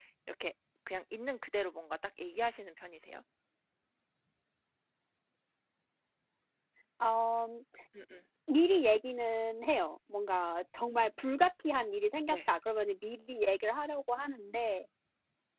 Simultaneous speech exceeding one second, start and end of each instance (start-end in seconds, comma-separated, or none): none